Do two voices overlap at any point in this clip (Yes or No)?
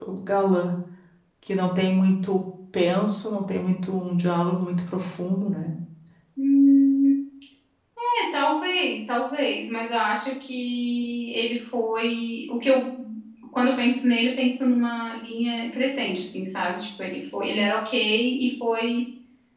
No